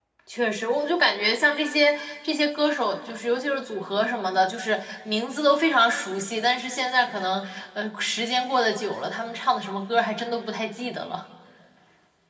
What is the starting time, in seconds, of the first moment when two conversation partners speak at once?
none

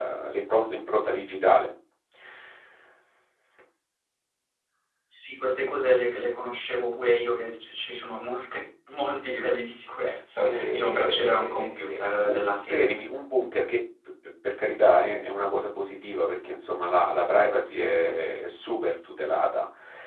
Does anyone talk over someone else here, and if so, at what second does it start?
10.4 s

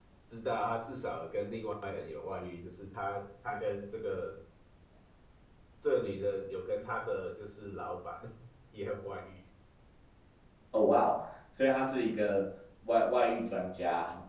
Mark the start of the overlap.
none

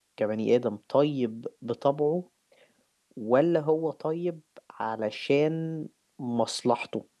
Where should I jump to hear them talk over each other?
none

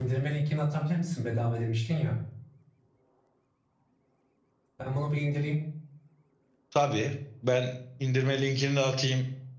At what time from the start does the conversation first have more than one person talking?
none

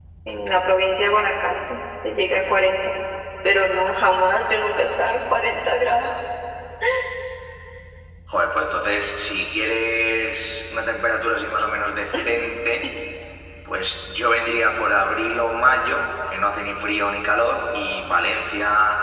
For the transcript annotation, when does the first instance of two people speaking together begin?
none

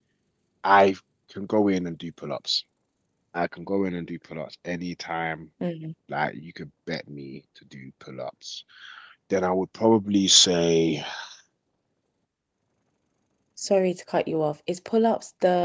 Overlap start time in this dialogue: none

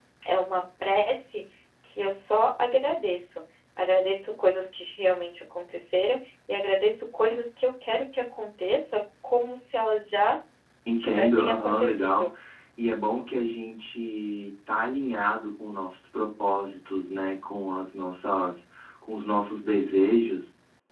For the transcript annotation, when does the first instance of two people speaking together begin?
11.0 s

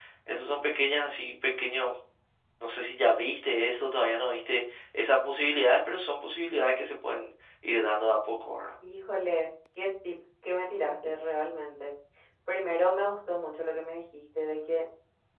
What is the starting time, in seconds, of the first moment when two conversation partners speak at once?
none

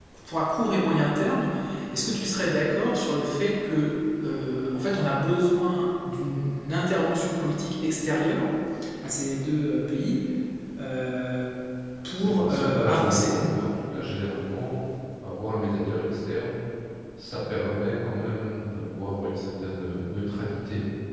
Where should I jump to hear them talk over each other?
12.1 s

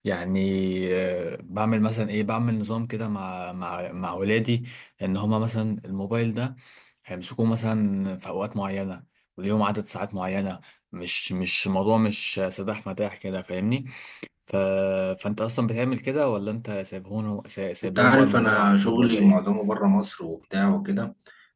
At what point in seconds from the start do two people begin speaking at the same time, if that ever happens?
17.8 s

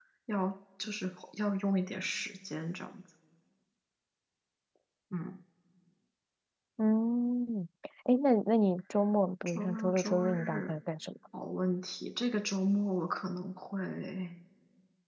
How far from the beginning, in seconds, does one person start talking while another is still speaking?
9.5 s

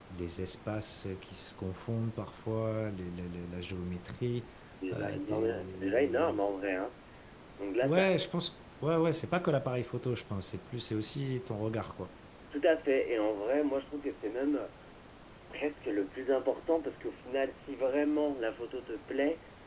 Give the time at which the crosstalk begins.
4.9 s

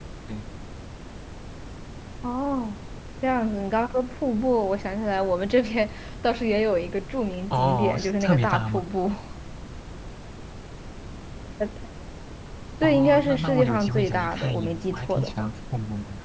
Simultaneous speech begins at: 7.6 s

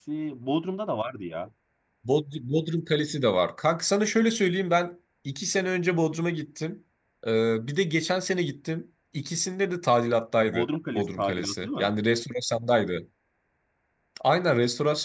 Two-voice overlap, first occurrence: 10.4 s

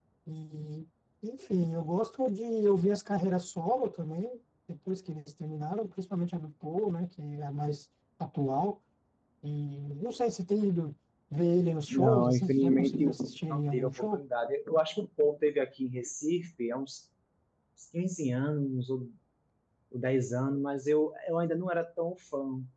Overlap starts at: 11.9 s

